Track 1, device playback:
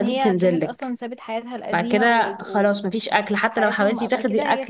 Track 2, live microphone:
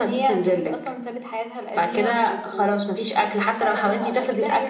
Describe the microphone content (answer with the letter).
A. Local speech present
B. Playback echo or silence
A